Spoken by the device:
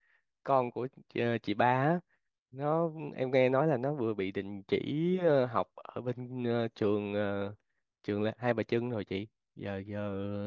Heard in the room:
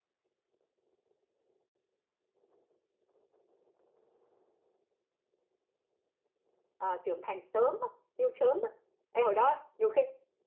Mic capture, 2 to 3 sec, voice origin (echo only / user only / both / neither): neither